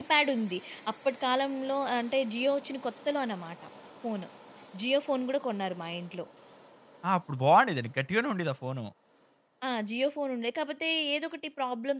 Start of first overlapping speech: none

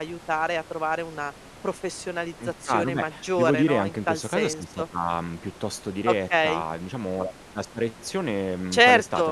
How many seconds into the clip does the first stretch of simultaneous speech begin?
2.7 s

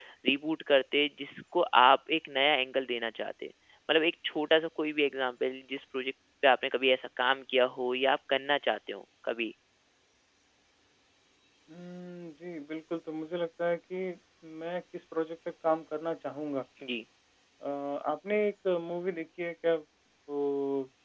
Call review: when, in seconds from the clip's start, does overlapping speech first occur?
none

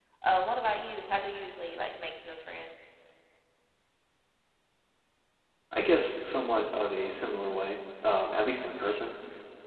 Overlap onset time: none

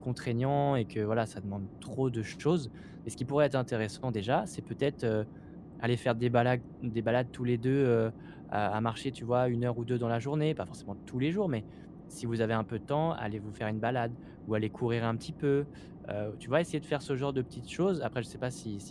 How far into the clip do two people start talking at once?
none

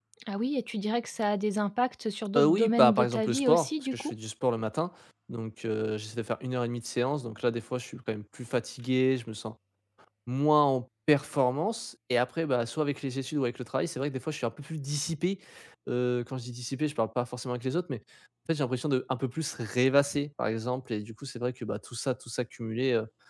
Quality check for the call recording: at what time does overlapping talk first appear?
2.4 s

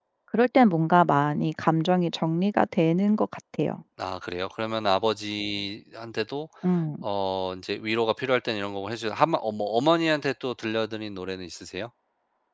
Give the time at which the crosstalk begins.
none

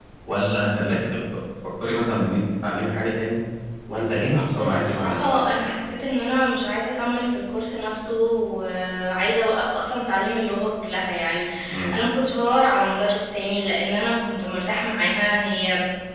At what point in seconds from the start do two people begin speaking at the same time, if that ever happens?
4.5 s

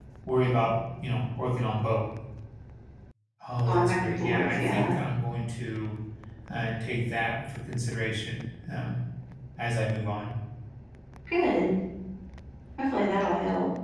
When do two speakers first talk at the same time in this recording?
3.7 s

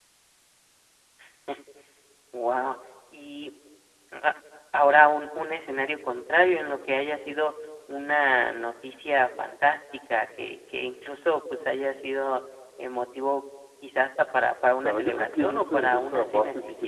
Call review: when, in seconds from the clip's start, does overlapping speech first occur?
14.8 s

